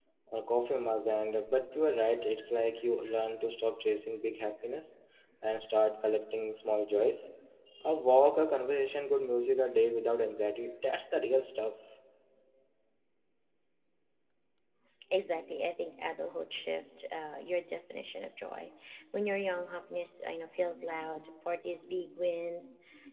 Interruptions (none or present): none